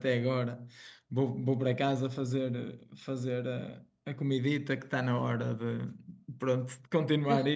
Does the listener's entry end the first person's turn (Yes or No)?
No